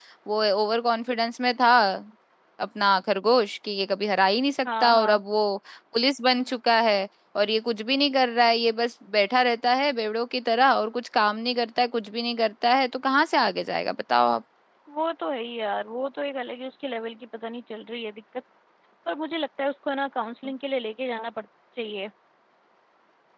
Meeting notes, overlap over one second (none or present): none